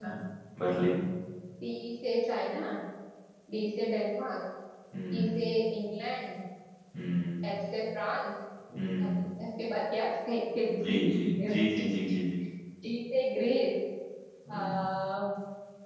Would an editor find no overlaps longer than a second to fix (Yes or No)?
No